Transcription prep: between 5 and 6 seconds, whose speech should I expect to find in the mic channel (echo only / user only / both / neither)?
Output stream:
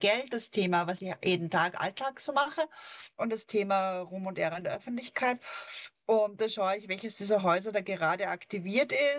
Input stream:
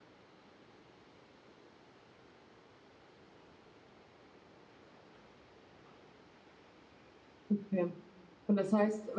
neither